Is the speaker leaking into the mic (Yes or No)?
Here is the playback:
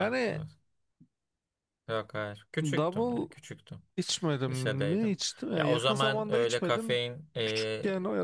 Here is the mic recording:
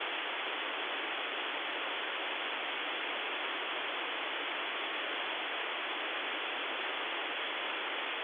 No